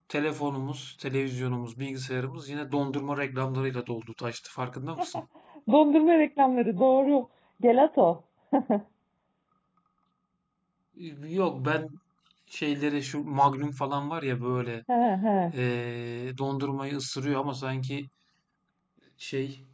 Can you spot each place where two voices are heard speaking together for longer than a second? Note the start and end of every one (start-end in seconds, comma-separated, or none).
none